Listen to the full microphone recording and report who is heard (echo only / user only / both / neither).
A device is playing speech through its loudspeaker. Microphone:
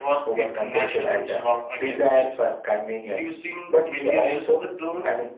both